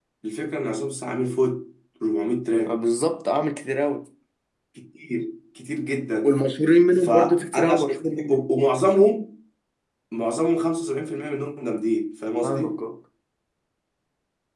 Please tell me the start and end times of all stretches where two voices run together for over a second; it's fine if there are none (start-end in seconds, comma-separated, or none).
6.9-8.4